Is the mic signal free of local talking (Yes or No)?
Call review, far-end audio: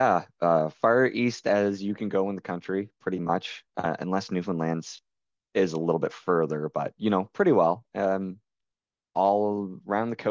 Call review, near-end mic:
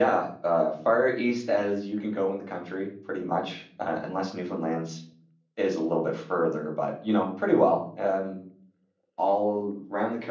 Yes